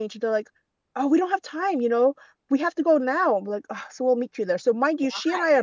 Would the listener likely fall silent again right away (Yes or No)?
Yes